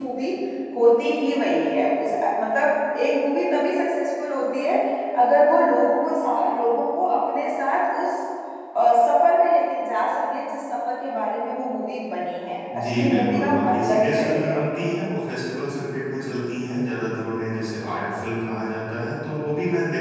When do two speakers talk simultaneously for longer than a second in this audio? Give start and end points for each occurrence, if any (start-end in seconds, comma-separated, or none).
12.8-14.6